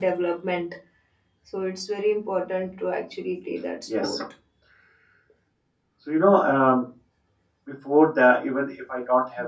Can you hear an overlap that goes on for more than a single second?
No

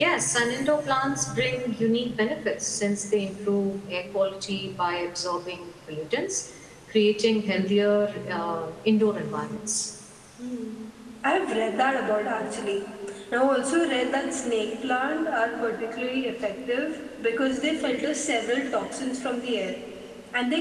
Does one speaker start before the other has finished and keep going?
No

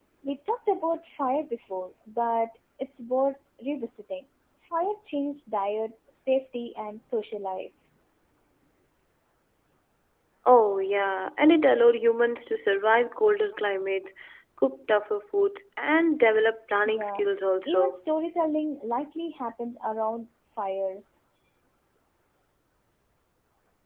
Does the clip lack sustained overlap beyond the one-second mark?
Yes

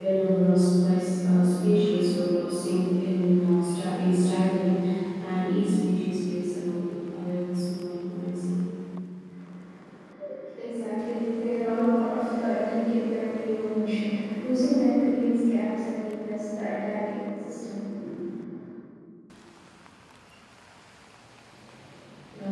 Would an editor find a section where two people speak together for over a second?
No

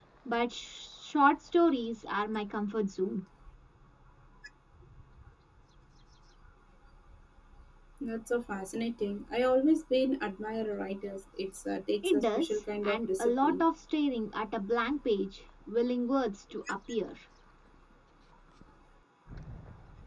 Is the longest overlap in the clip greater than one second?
Yes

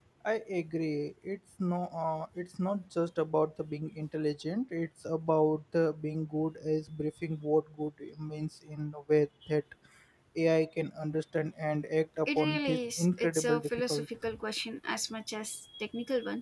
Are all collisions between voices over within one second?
No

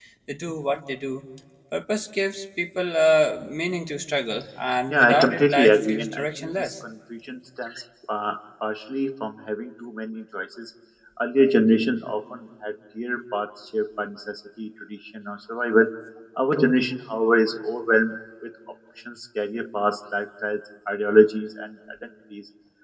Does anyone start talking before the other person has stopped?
Yes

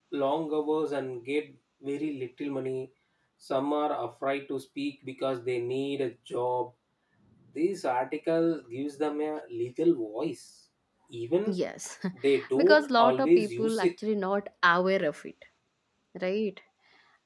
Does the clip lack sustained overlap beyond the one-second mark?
No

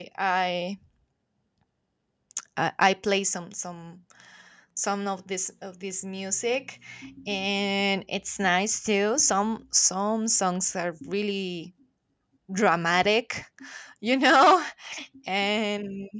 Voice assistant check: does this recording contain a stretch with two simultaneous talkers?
No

